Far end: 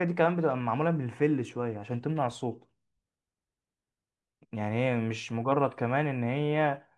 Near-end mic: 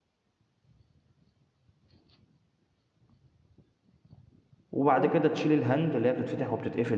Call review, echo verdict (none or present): none